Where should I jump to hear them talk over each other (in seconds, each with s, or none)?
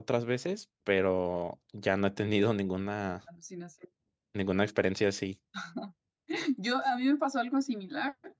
none